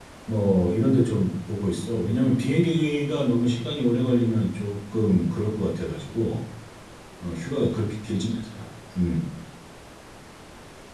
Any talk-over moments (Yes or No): No